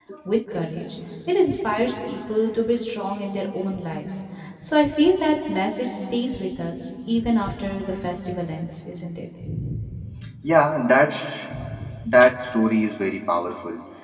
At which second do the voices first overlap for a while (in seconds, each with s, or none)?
none